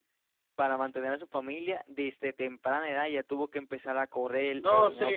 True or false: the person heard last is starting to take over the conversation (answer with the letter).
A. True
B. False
A